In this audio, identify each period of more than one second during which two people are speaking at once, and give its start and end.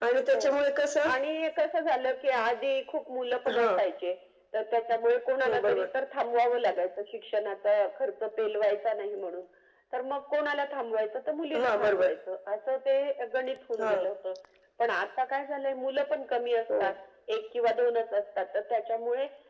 none

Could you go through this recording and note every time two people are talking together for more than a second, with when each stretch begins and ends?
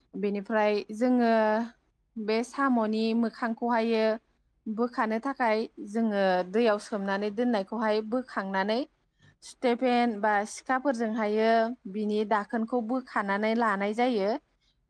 none

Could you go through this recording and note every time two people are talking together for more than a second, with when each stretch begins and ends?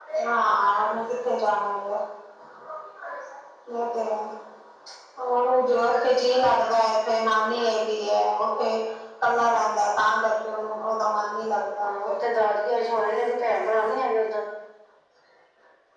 none

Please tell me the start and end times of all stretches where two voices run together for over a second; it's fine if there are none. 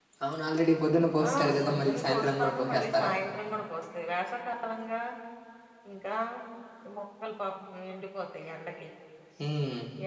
1.2-3.1

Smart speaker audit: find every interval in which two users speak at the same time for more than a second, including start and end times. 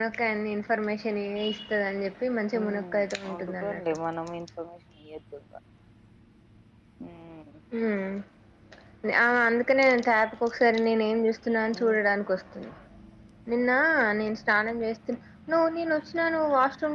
2.6-3.8

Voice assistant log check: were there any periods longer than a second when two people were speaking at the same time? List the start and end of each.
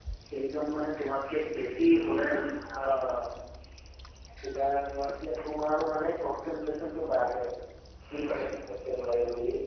none

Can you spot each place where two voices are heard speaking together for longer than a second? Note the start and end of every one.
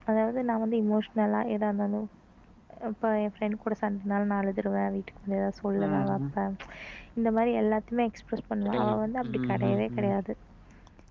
8.7-10.1

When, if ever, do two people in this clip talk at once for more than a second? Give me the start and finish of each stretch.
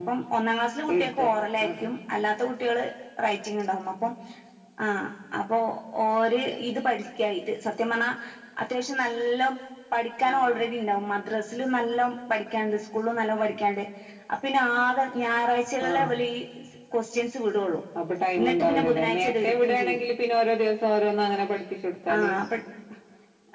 18.4-20.0

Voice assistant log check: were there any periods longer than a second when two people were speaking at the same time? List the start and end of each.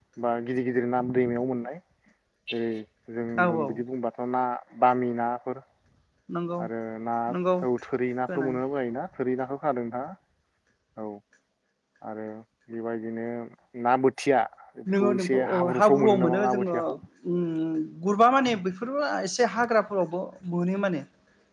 15.0-16.8

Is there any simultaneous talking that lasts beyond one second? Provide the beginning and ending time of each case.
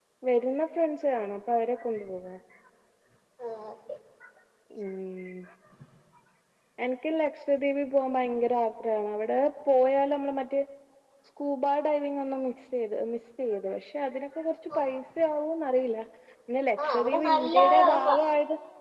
16.8-18.2

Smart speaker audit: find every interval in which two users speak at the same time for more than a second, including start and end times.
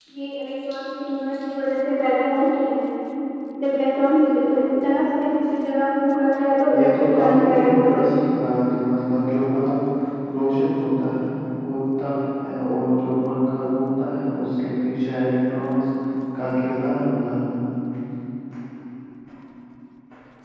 6.8-8.1

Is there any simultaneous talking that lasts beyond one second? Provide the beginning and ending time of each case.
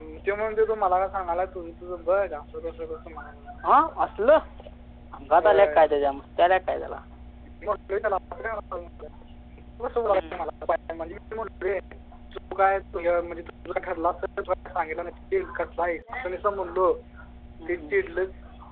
none

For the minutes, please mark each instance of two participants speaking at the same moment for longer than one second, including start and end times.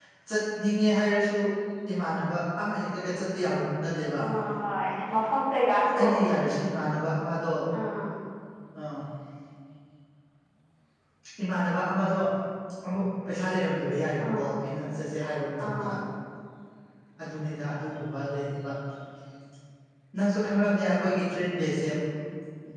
none

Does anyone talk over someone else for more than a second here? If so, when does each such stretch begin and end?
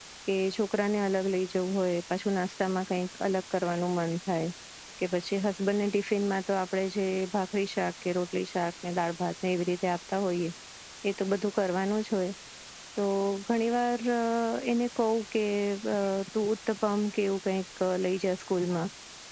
none

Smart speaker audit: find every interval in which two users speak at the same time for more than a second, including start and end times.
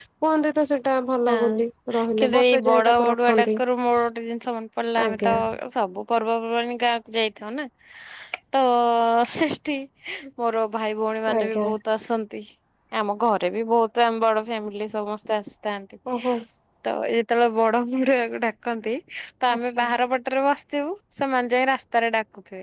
2.2-3.6

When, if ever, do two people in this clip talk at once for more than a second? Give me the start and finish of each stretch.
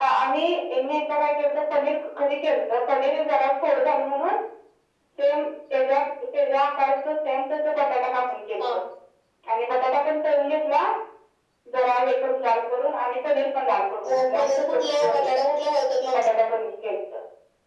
14.1-15.3

